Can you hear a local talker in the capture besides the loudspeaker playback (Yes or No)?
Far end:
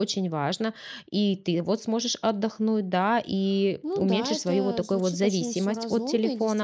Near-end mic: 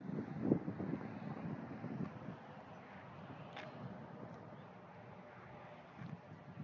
No